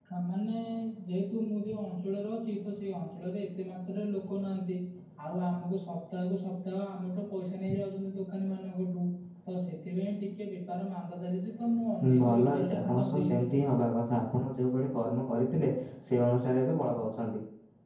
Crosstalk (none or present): present